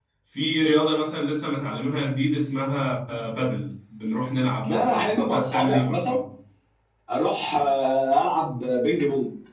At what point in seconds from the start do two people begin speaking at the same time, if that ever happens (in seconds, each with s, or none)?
4.6 s